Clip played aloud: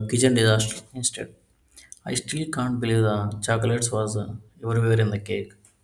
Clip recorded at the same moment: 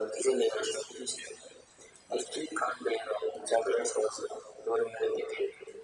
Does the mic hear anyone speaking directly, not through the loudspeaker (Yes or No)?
No